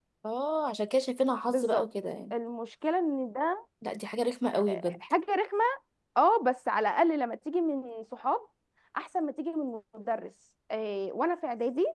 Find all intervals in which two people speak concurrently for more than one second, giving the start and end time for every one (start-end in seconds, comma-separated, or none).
none